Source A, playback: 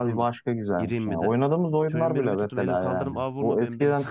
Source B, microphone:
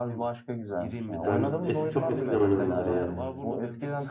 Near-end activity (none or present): present